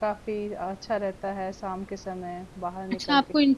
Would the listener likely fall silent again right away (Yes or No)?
No